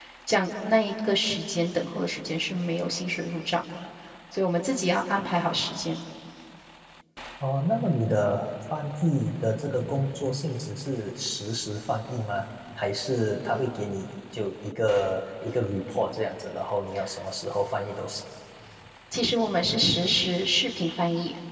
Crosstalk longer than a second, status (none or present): none